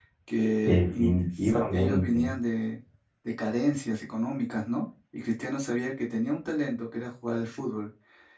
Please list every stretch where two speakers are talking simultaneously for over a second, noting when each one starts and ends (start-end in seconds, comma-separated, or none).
0.7-2.3